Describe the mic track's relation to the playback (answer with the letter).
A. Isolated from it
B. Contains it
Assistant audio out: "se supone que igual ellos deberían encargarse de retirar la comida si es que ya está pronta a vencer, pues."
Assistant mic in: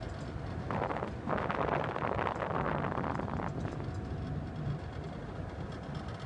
A